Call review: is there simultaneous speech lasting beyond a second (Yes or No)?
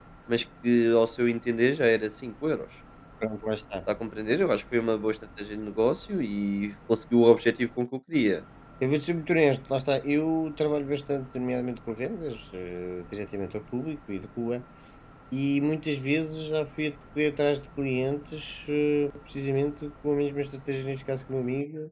No